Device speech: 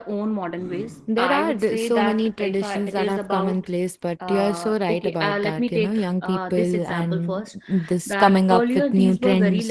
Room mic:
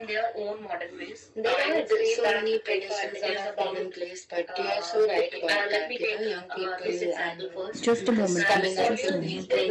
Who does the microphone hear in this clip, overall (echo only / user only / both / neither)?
both